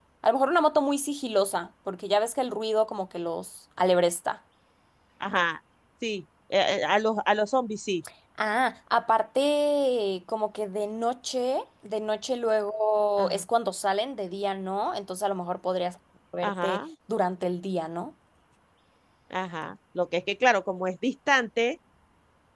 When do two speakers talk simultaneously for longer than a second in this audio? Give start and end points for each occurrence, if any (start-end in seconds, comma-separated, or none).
none